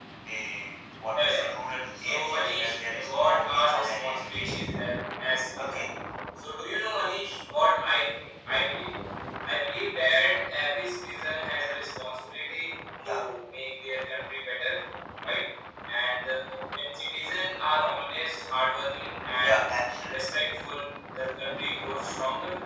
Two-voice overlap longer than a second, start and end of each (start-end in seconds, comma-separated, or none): 1.9-4.6